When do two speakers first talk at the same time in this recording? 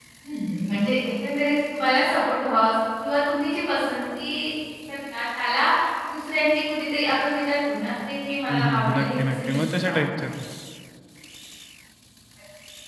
8.5 s

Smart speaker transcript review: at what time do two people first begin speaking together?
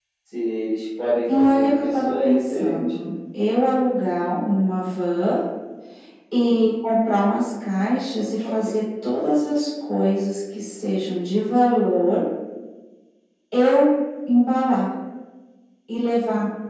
1.3 s

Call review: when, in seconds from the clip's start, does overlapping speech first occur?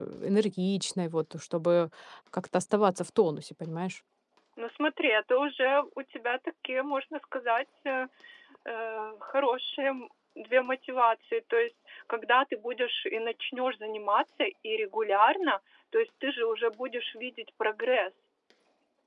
none

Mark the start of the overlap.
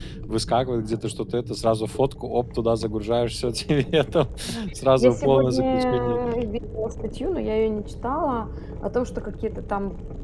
5.0 s

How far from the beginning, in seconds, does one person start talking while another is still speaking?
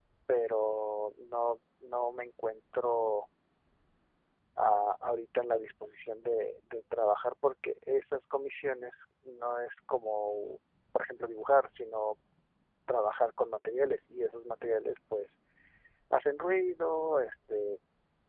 none

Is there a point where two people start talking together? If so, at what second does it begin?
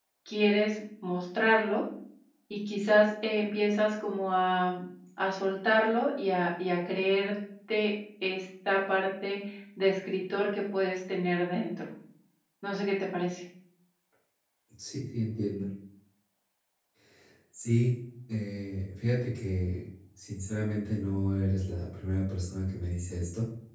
none

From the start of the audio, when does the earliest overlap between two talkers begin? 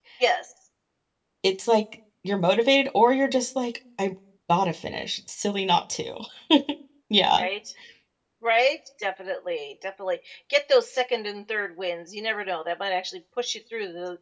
none

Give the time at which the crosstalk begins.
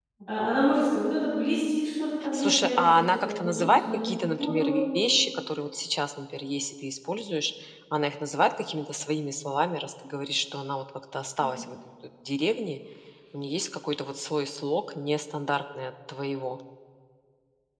2.2 s

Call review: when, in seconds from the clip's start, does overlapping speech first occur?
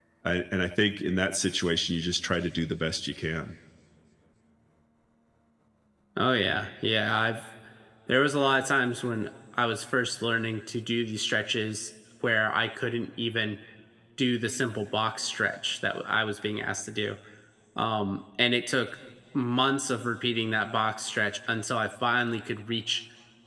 none

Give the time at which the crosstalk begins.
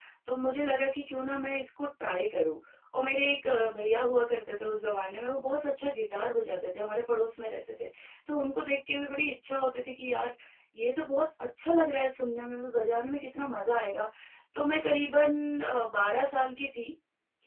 none

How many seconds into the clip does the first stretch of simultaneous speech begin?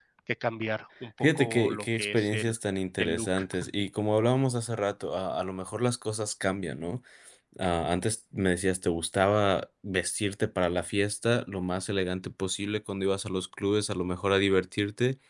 1.2 s

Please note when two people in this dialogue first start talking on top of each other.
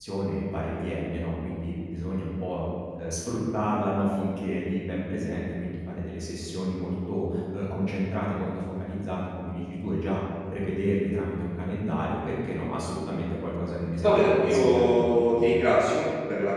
14.0 s

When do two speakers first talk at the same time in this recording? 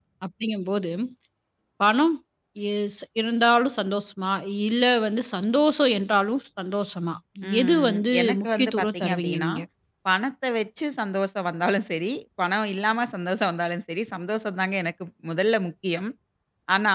7.6 s

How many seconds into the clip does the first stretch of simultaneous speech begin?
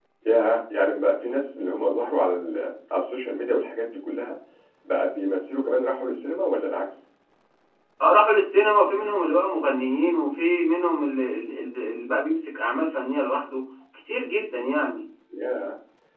none

